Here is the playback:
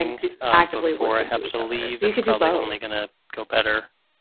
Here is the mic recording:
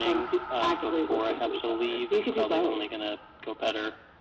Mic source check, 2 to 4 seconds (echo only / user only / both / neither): echo only